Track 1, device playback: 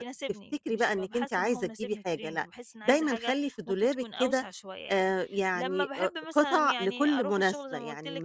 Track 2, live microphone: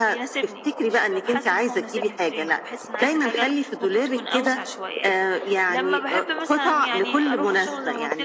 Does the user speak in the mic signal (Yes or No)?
No